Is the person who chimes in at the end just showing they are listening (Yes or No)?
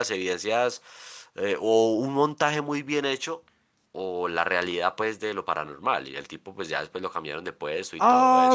No